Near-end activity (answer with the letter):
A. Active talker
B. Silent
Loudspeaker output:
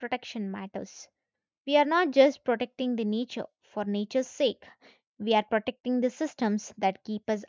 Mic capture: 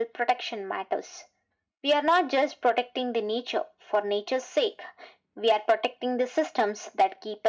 B